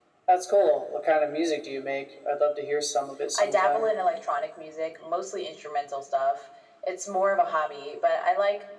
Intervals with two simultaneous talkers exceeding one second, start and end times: none

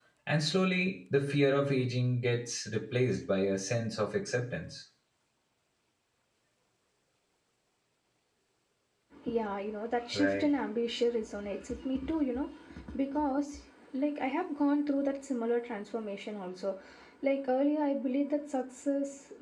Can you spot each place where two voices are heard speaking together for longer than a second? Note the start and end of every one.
none

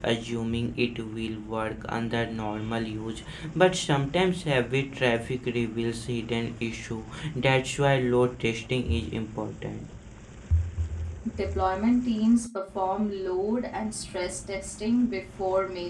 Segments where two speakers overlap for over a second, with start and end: none

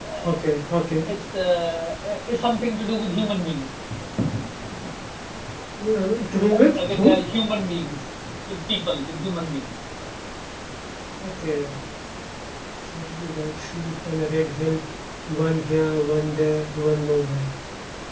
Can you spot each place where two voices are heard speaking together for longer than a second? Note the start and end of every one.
none

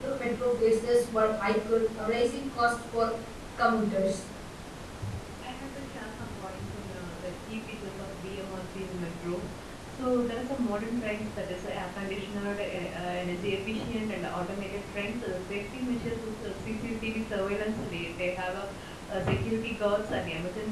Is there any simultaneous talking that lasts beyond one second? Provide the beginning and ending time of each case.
none

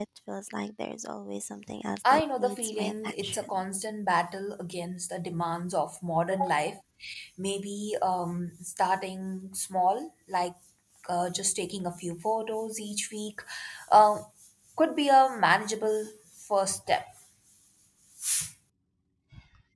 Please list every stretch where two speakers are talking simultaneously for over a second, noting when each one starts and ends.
2.1-3.6

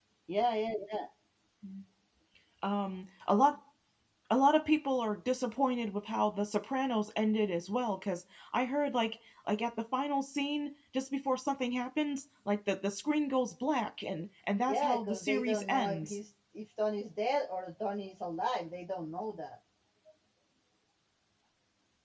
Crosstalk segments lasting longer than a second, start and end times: 14.7-16.2

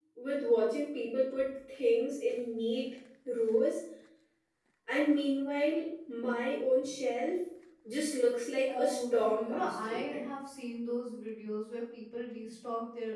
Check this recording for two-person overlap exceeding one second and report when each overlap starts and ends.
8.7-10.2

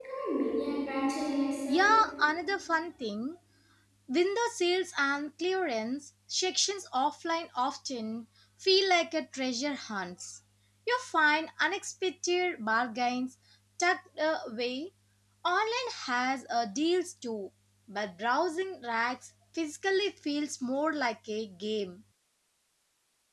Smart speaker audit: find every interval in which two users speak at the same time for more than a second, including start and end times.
none

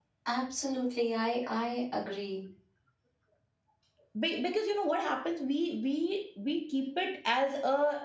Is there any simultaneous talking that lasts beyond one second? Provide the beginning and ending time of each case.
none

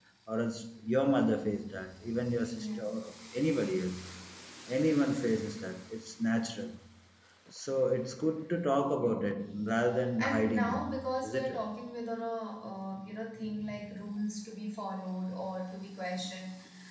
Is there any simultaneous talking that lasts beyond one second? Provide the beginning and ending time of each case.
10.2-11.6

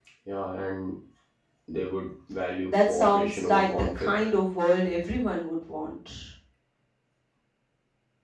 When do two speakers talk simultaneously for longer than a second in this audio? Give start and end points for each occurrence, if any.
2.6-4.1

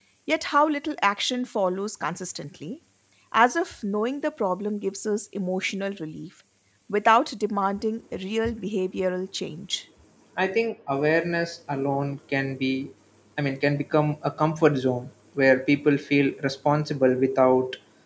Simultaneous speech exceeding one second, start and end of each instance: none

